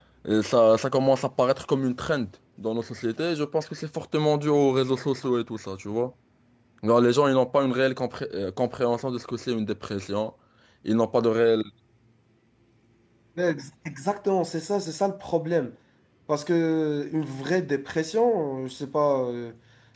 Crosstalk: none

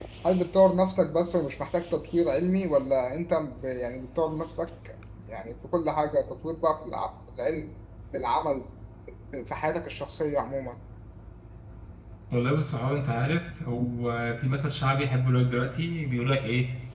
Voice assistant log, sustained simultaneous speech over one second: none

